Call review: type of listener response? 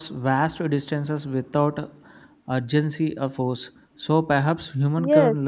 taking over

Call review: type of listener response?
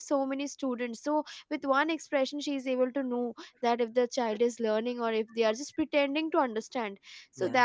listening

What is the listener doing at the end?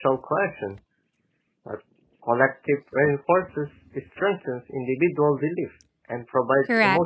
taking over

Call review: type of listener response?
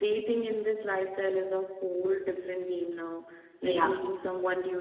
listening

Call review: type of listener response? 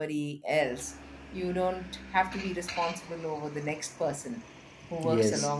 listening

